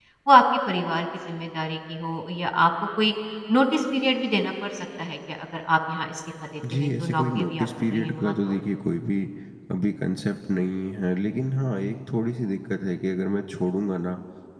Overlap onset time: 6.6 s

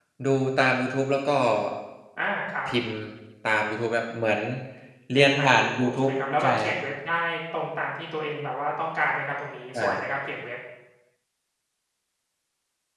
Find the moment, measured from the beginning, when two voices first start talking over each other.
5.1 s

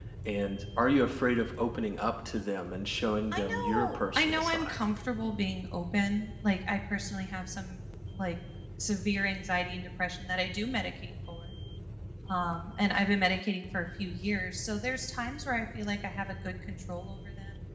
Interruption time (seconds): 3.3 s

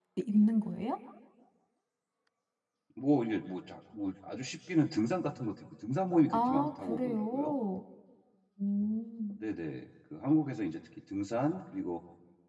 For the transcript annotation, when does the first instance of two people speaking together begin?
6.3 s

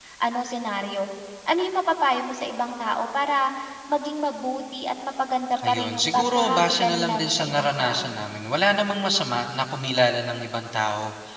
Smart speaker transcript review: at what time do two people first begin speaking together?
5.6 s

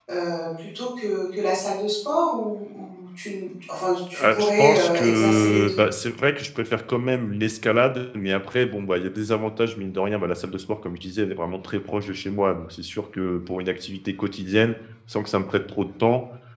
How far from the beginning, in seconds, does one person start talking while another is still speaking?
4.1 s

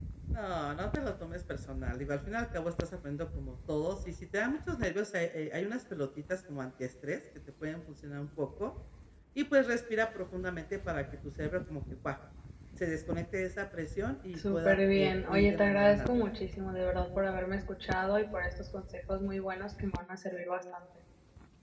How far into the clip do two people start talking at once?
14.3 s

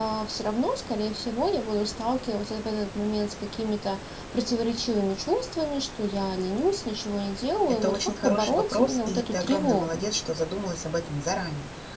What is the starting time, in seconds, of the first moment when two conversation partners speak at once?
7.8 s

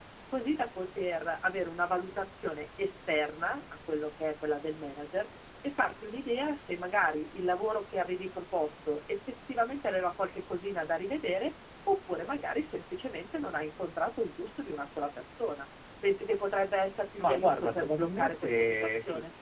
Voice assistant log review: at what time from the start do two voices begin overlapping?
17.2 s

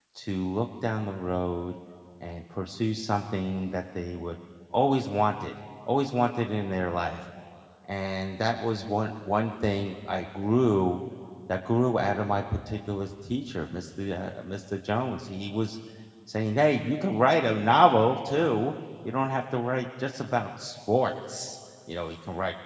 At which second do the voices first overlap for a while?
none

